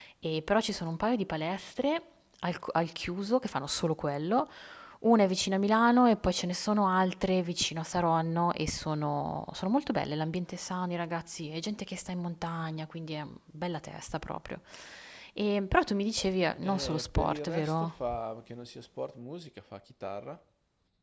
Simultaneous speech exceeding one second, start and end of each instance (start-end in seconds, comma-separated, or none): 16.6-18.1